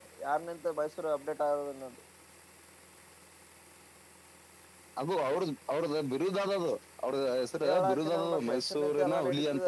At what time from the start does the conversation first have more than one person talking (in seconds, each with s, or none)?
7.4 s